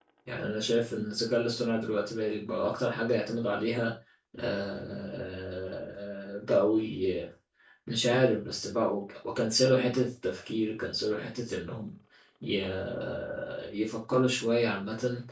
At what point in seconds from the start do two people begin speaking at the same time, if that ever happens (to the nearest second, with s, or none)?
none